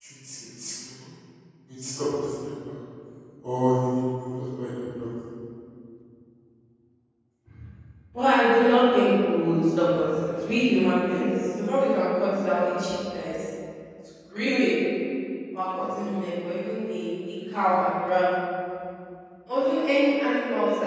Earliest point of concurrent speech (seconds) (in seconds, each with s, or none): none